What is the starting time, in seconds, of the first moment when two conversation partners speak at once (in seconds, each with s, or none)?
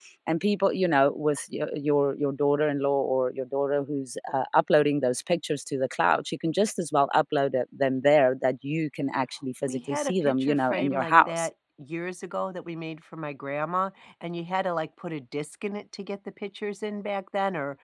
9.7 s